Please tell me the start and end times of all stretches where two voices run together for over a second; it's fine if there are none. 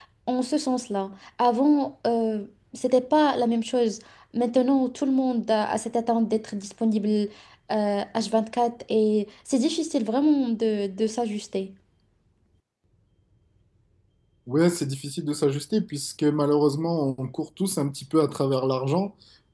none

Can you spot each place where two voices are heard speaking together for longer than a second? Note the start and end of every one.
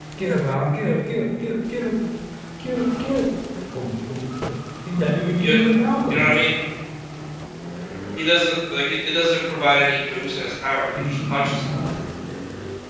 none

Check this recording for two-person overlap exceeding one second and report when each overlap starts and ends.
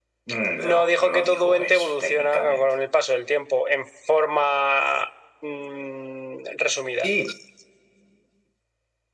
0.6-2.7

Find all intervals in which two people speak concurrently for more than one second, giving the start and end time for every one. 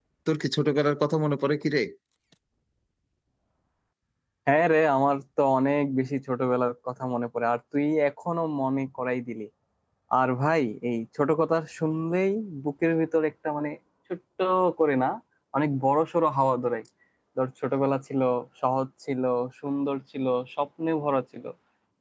none

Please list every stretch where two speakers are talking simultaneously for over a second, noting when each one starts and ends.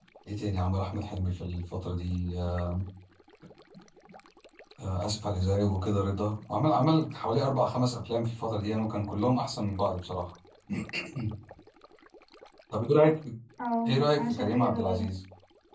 13.9-15.1

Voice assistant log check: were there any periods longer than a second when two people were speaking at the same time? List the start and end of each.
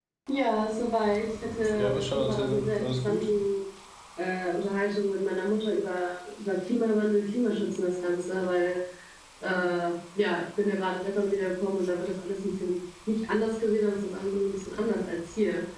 1.6-3.3

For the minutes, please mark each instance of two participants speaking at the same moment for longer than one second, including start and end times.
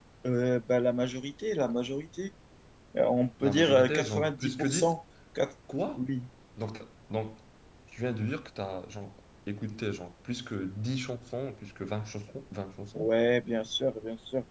3.4-5.0

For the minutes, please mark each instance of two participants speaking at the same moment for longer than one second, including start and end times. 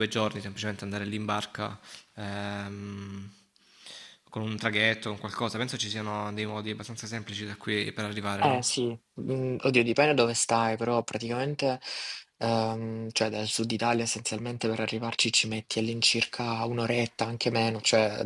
none

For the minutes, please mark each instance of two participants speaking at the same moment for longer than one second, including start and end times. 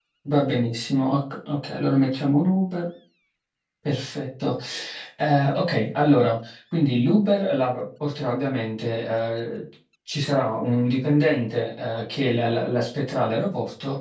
none

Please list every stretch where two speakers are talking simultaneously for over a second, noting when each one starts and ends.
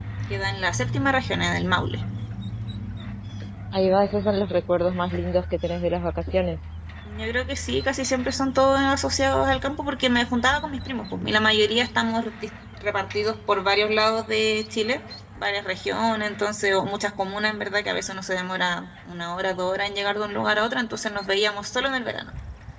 none

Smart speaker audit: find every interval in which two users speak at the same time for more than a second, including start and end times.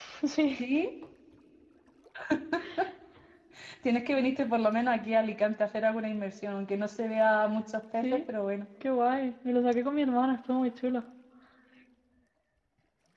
none

